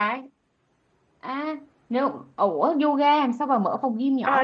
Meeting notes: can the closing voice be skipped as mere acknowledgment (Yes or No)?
No